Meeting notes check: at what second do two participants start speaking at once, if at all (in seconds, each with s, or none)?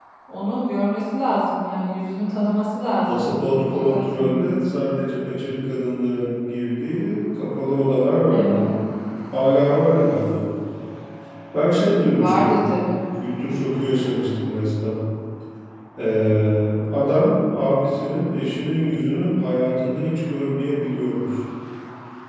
3.1 s